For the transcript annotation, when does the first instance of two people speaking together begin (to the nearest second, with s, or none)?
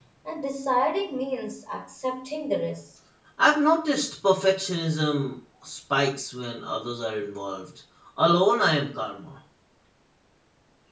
none